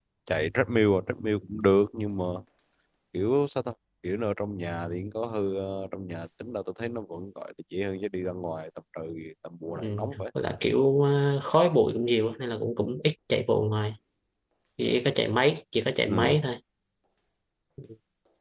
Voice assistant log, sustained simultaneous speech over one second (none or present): none